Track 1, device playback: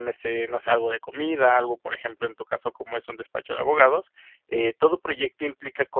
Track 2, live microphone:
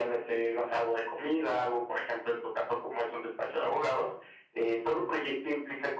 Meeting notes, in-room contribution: none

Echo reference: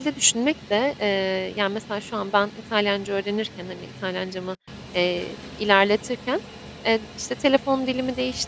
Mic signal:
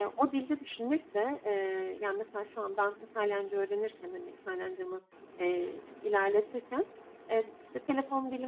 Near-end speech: none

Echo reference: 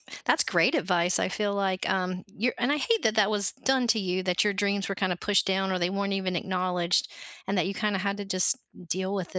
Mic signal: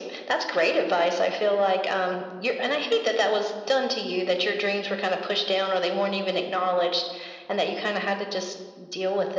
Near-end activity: none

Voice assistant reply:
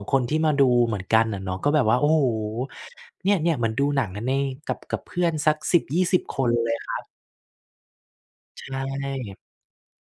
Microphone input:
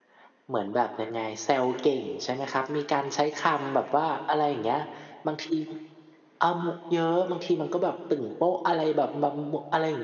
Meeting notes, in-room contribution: present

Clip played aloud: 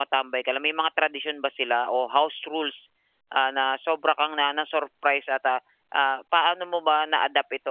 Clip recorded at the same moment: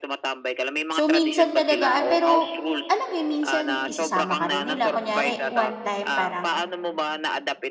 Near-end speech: present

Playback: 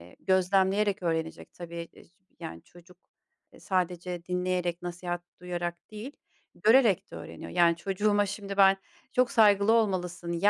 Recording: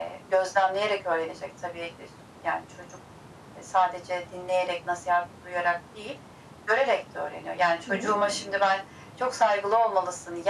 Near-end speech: present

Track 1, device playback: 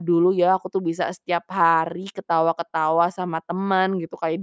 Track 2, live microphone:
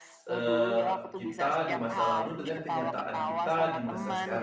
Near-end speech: present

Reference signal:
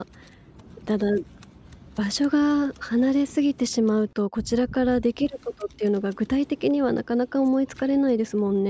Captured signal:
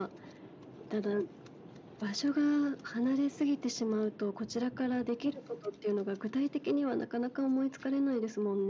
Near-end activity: none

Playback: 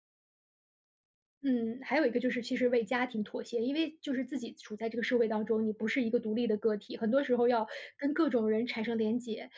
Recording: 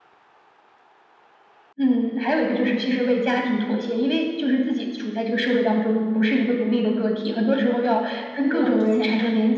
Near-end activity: present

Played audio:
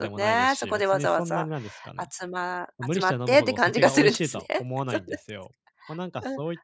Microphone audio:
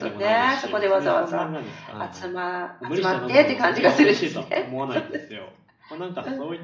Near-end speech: present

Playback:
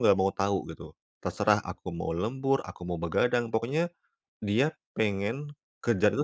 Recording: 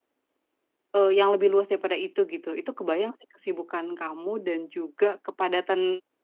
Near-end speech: present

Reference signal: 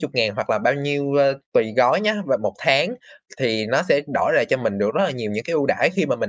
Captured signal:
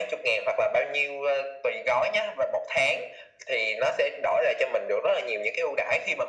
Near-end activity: none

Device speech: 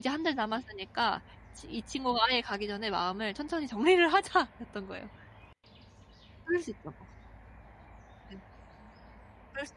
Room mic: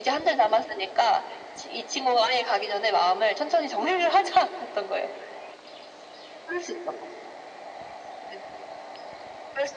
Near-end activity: none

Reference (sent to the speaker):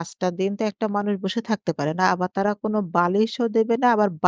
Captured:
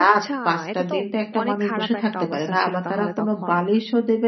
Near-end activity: present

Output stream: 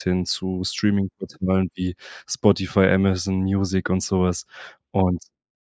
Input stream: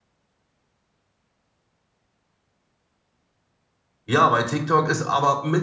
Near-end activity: present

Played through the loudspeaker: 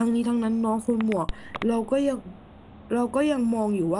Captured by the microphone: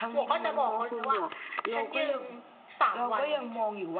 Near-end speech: present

